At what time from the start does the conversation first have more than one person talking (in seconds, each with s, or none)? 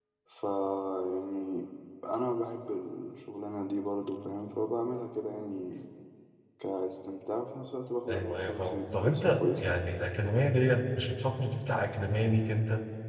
8.1 s